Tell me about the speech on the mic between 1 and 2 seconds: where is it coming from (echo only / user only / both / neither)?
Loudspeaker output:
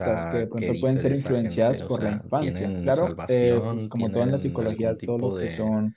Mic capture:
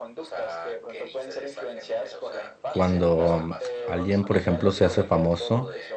echo only